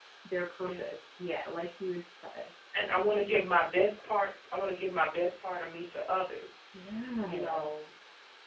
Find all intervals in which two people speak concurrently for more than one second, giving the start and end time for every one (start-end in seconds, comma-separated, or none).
none